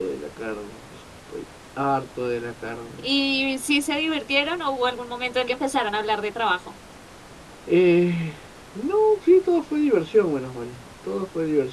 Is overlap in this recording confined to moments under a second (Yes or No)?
Yes